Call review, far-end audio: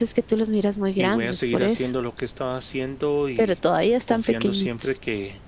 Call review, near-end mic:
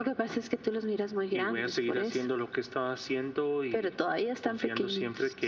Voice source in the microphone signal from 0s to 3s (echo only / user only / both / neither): echo only